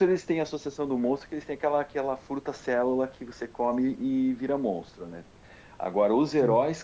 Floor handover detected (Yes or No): No